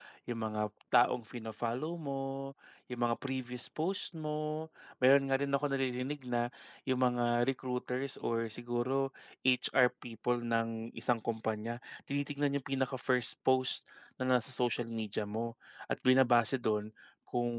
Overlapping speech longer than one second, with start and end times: none

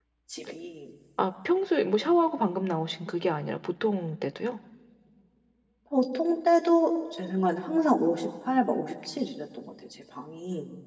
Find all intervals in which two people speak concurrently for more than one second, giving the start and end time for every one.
none

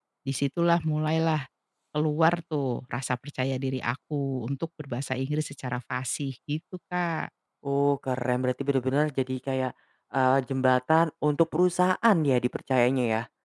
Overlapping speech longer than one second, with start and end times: none

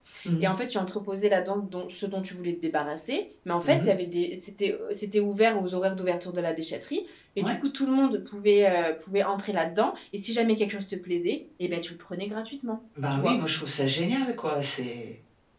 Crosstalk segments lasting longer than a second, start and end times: none

